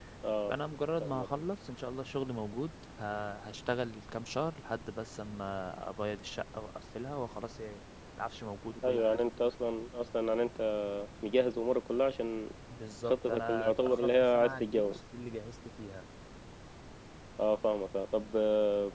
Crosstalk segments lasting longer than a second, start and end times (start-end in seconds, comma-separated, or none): 13.1-15.0